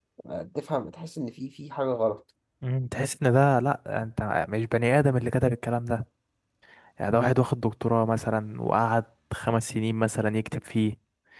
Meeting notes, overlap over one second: none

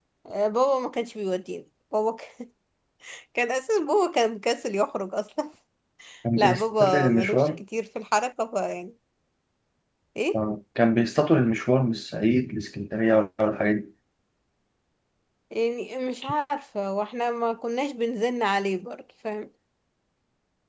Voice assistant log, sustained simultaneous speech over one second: present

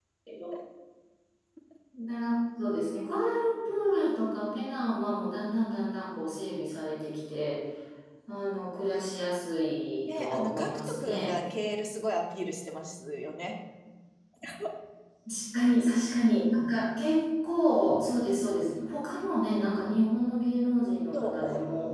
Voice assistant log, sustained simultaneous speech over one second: present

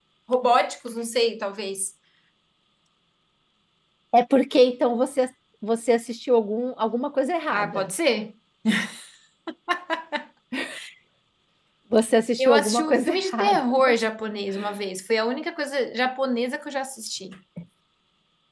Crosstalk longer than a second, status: present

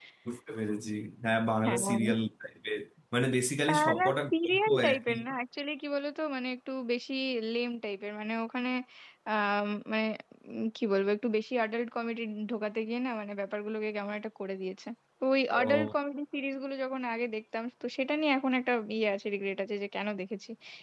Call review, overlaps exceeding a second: present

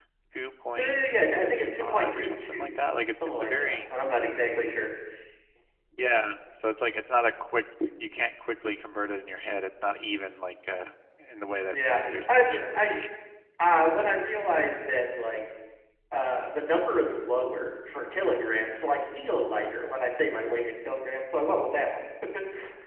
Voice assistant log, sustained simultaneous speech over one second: present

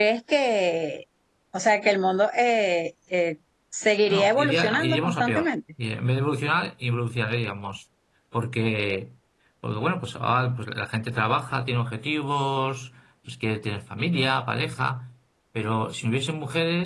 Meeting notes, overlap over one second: present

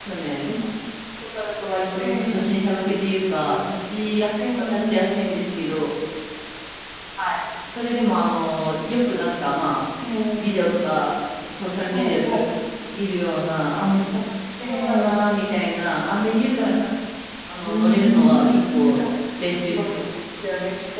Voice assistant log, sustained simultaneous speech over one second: present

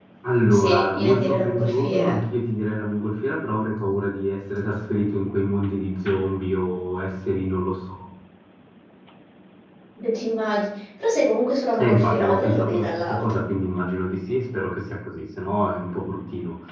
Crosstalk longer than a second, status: present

